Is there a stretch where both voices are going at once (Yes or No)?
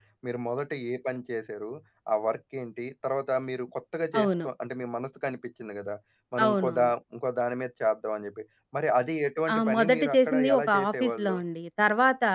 Yes